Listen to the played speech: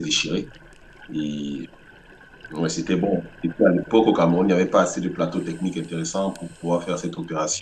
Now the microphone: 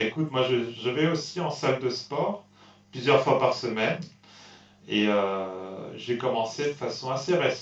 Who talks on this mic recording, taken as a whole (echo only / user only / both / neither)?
user only